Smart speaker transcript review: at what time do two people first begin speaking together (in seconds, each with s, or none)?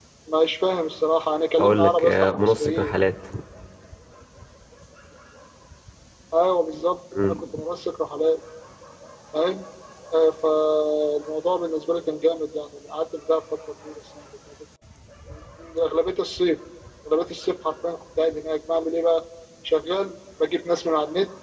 1.6 s